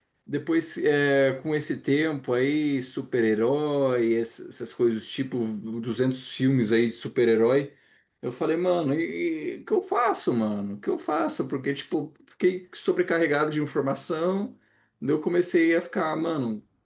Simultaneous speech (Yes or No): No